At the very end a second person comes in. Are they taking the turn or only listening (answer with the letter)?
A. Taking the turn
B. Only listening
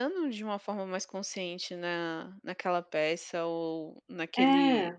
B